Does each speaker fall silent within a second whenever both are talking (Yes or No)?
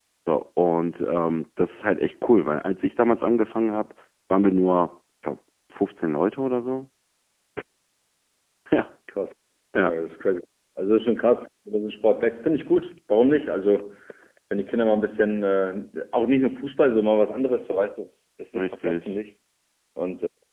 Yes